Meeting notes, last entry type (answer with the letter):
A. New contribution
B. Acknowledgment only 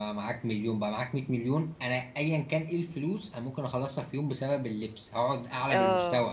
B